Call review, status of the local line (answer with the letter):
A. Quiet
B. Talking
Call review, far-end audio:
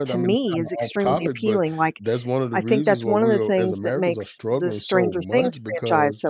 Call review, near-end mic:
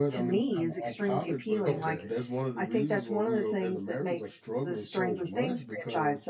B